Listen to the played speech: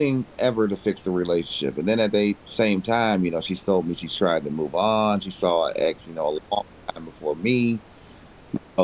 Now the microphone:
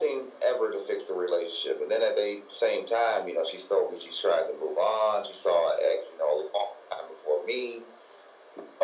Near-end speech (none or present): none